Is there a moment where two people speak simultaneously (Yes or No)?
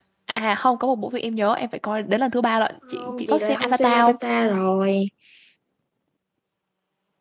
Yes